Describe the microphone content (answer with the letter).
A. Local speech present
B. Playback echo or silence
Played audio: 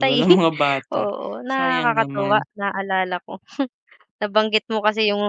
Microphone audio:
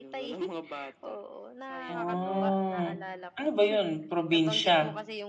A